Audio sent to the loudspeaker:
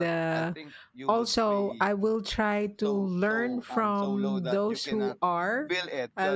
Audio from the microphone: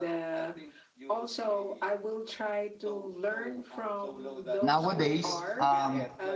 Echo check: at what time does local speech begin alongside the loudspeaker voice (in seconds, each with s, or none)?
4.6 s